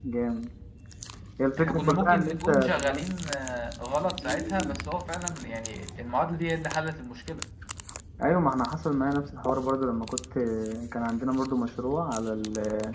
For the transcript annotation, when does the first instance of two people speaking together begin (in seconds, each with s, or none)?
1.6 s